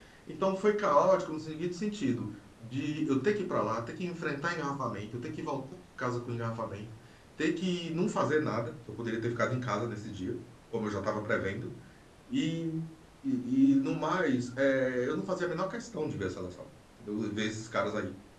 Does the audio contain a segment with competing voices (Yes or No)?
No